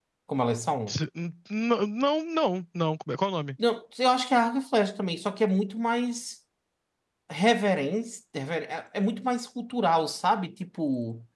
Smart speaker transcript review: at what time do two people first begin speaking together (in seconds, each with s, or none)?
none